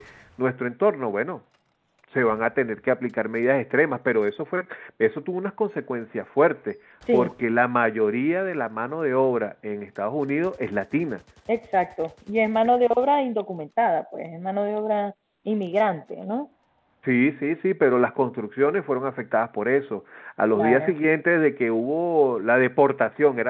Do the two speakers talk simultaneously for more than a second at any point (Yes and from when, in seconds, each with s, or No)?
No